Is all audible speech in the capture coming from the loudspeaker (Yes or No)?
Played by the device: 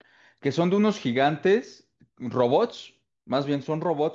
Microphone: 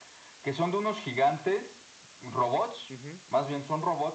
No